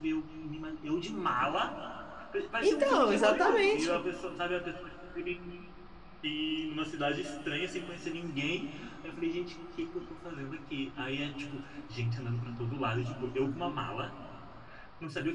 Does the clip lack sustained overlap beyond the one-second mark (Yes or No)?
No